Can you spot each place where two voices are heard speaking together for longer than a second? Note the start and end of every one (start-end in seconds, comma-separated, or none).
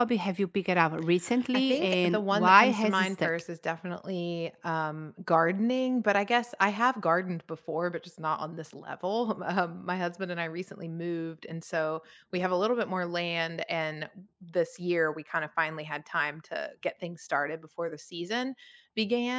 1.5-3.3